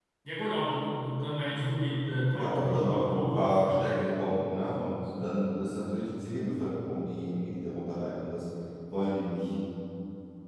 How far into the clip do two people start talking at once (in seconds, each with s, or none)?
2.3 s